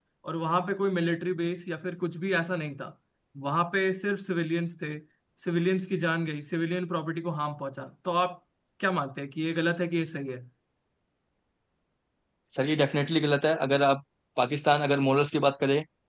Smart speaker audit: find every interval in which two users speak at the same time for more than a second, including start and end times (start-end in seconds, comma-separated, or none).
none